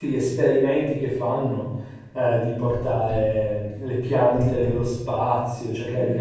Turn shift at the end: No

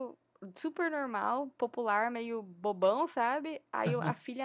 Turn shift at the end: No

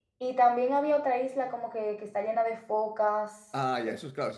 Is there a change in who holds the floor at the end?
Yes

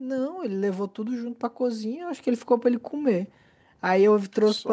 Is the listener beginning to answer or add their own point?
No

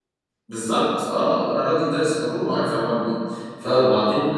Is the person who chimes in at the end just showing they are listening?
Yes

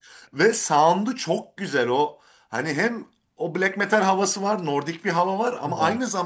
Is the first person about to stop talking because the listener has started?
No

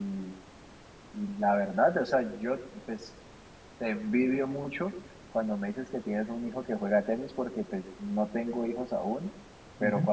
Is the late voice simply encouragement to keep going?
Yes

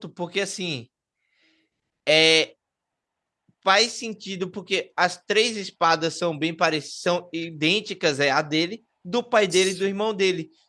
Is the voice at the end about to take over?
No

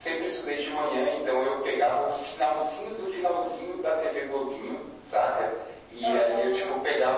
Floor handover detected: No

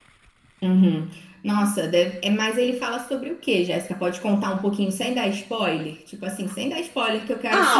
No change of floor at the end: No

